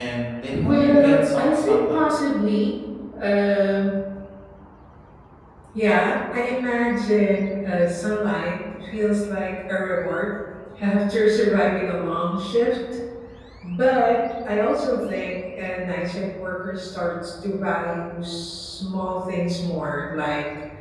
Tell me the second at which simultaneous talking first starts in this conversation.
1 s

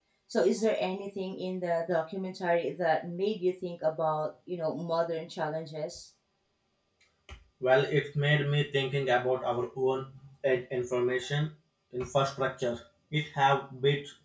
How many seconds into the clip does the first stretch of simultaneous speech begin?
none

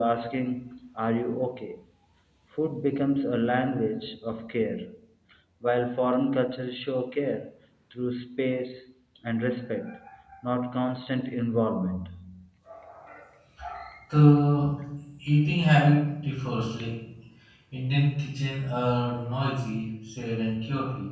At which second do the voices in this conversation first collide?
none

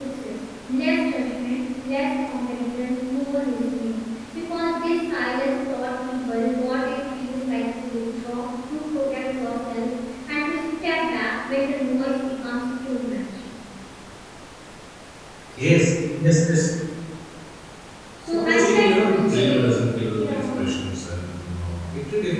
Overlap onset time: 18 s

